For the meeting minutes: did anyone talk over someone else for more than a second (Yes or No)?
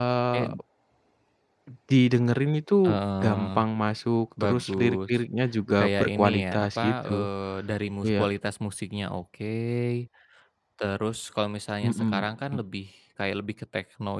Yes